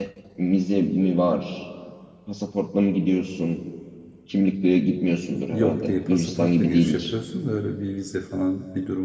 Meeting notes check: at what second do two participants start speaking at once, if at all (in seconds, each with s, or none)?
5.5 s